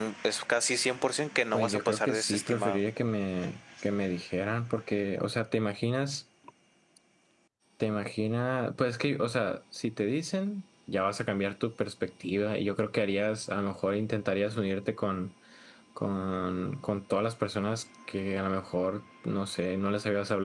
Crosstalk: present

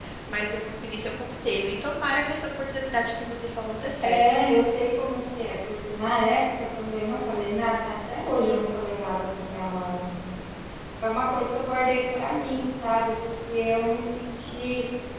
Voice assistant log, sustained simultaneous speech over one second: none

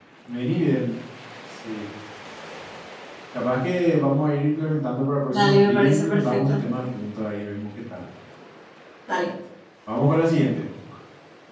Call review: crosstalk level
present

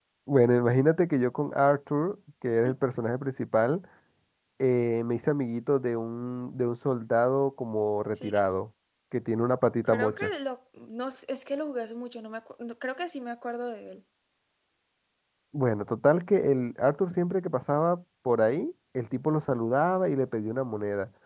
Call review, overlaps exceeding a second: none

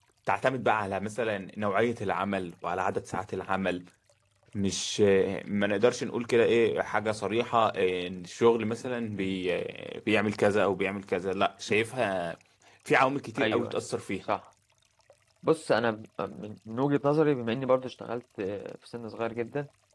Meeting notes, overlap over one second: none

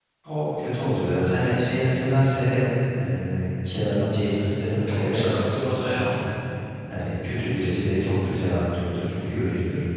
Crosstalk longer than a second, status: none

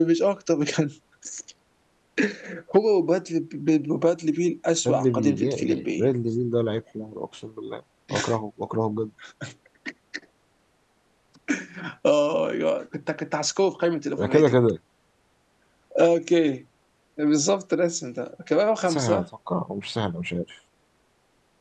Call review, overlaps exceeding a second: present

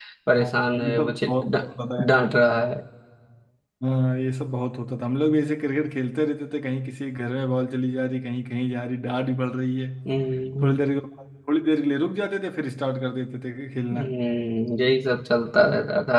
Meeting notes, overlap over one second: present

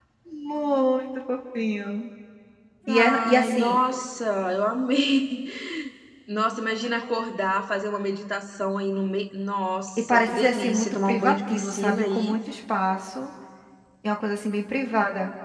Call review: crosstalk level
present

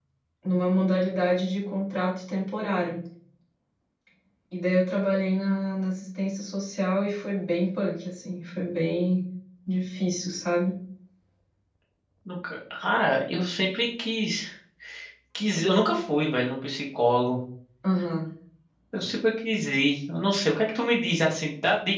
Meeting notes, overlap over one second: none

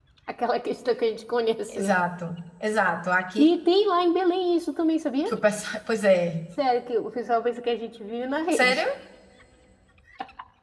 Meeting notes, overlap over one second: none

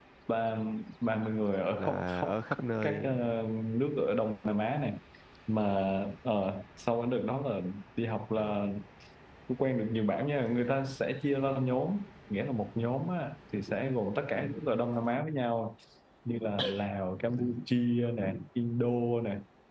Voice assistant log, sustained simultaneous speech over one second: present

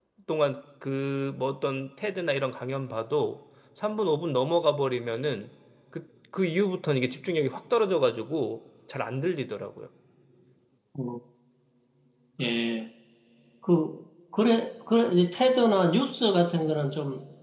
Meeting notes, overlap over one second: none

